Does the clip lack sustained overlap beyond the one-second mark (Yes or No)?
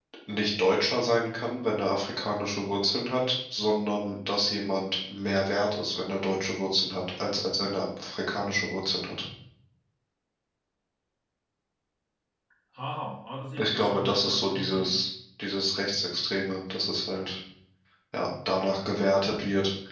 No